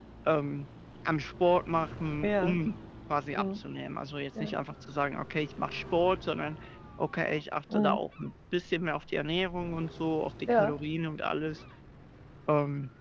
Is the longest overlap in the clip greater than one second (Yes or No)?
No